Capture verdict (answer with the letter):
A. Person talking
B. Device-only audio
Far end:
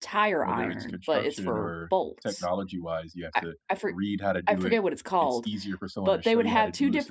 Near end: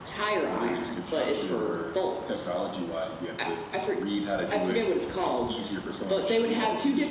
B